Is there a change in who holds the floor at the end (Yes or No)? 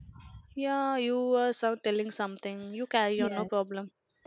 Yes